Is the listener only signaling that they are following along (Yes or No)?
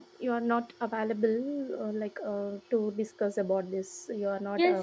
No